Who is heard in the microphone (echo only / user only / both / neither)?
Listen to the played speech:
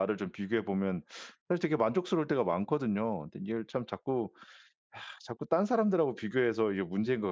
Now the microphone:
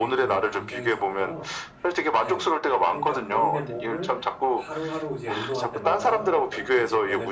both